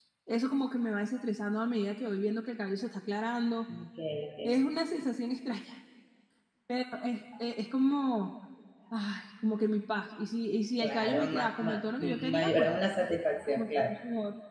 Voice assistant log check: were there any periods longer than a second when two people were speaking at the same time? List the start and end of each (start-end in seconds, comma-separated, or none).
10.8-12.7